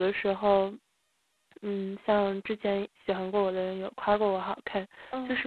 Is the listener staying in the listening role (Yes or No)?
Yes